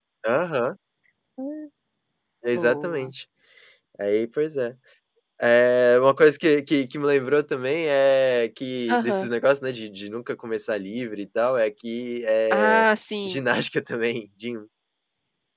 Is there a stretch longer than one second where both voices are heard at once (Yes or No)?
No